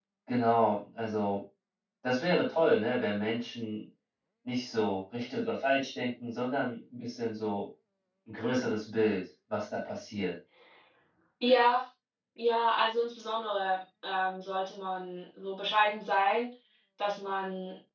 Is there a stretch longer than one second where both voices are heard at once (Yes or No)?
No